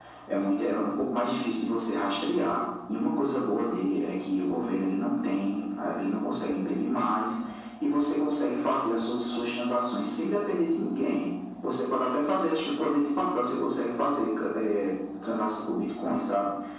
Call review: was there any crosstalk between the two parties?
No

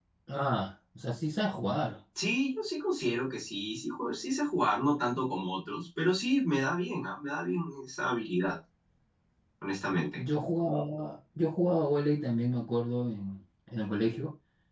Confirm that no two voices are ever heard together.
Yes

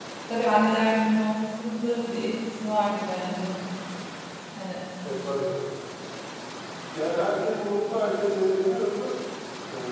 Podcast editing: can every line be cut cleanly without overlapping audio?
Yes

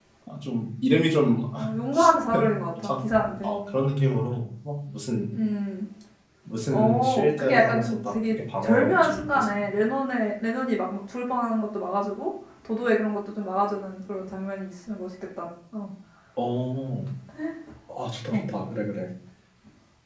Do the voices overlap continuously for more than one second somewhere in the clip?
Yes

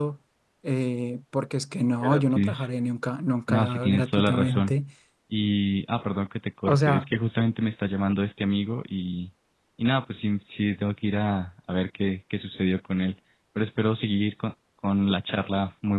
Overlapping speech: Yes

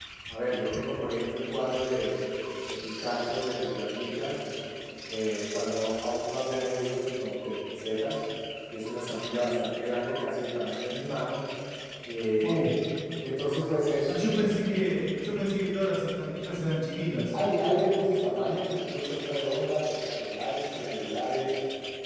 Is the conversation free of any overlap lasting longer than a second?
Yes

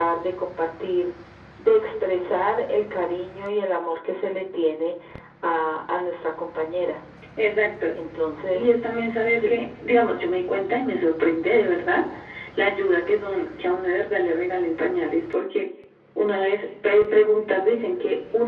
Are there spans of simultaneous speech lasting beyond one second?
No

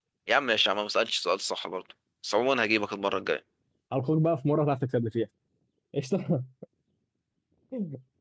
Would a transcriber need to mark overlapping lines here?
No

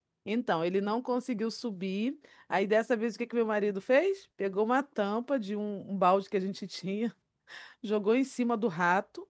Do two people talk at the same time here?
No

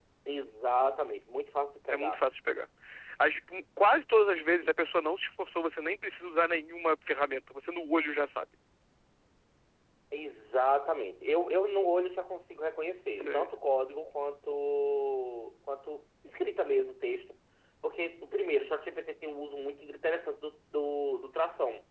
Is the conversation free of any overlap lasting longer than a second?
Yes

